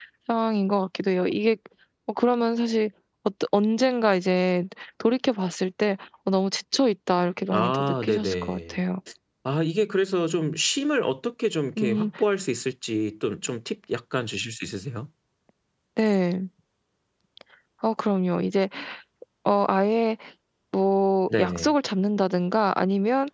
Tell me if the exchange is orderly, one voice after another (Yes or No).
No